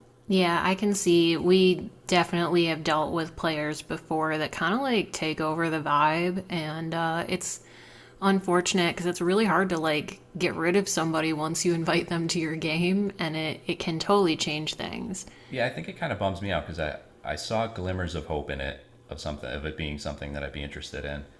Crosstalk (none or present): none